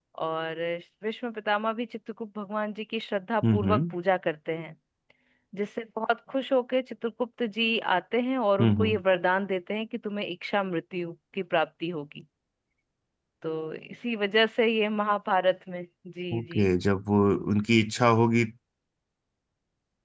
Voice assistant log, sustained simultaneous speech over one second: none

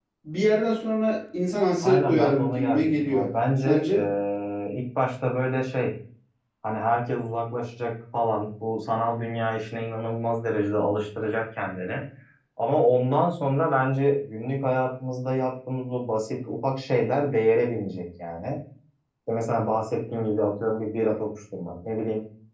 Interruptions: present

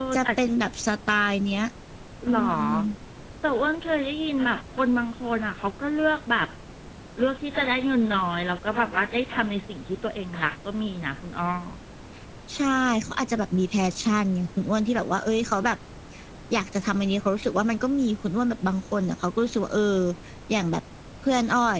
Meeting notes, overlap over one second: none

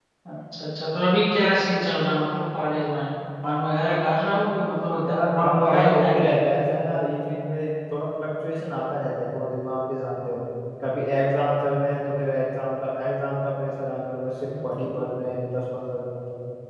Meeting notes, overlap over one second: present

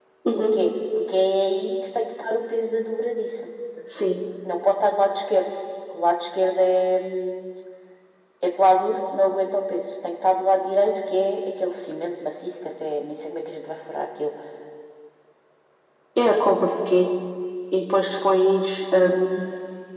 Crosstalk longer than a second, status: none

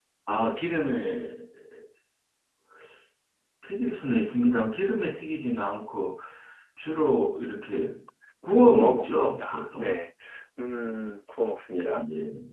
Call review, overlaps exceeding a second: present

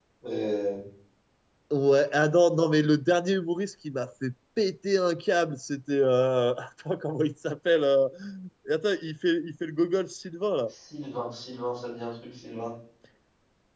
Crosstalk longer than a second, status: none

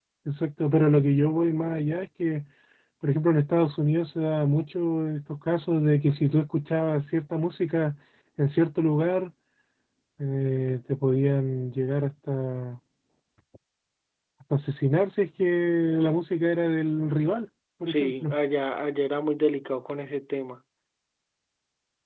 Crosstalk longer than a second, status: none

